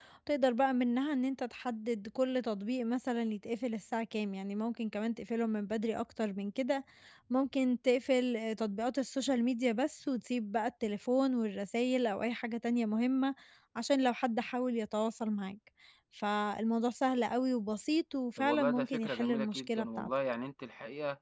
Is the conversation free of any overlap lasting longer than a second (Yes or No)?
No